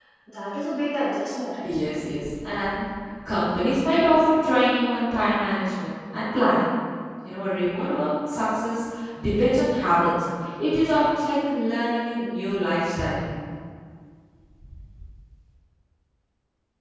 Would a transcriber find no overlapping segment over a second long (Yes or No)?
Yes